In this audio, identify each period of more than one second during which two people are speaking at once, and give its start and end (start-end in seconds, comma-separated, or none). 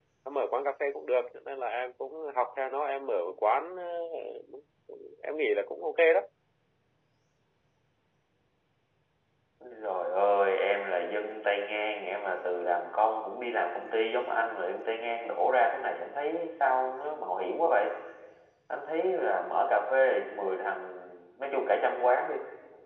none